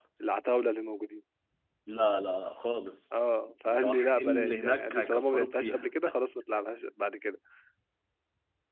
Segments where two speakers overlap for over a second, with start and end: 3.7-5.9

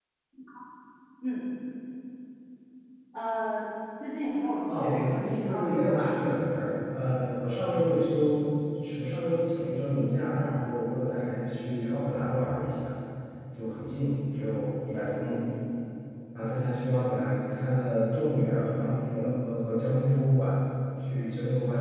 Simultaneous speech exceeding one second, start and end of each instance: 4.8-6.1

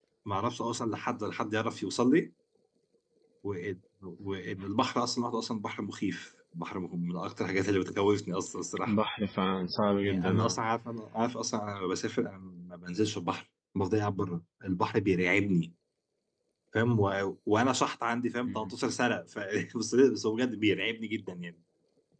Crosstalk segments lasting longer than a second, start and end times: none

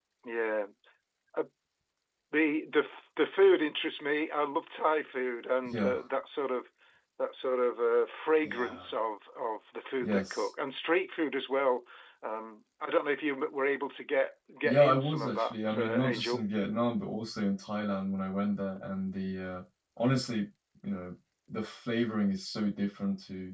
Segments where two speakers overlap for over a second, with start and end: 14.6-16.4

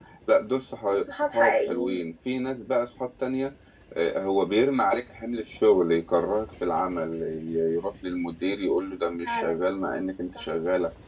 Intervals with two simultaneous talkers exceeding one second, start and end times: 0.9-2.1

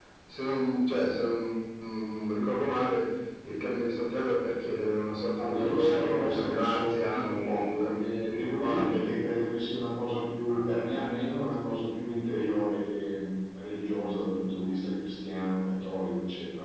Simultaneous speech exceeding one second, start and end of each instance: 5.4-9.1

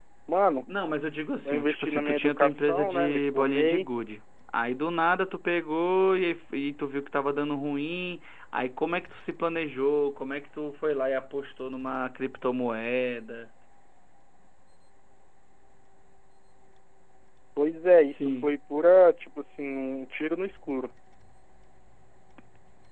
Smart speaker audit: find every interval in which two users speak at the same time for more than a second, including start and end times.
1.4-3.9

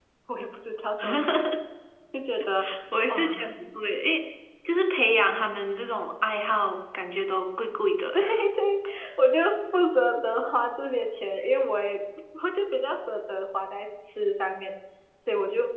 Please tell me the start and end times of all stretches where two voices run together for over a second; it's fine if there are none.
none

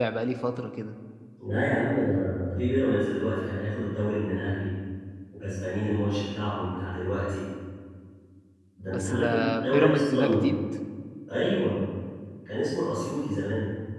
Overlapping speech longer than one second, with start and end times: 8.9-10.4

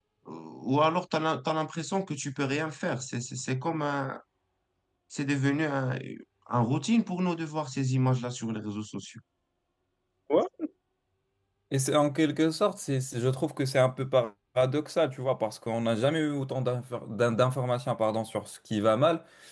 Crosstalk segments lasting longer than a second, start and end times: none

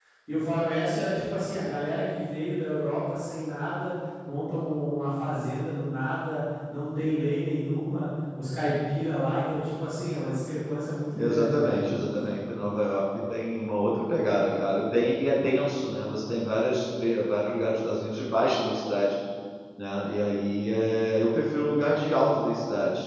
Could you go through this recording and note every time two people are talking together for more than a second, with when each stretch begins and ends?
none

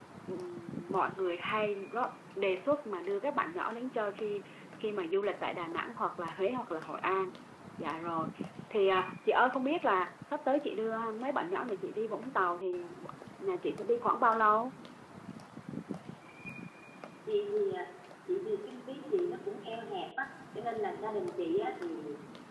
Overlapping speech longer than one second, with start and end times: none

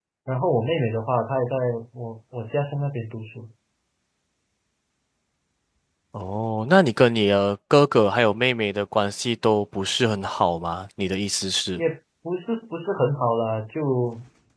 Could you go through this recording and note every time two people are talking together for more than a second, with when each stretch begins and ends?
none

